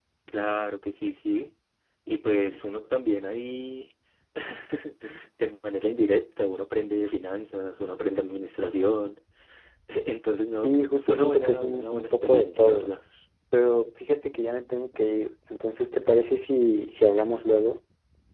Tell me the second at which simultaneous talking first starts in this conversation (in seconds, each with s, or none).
10.5 s